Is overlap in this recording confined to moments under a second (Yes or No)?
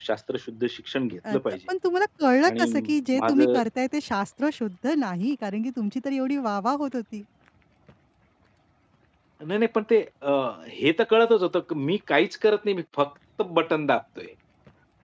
Yes